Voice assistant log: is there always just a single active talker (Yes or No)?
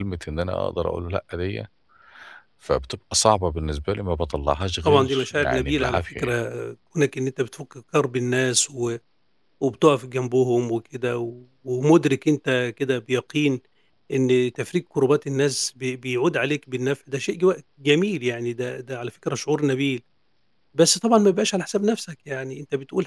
No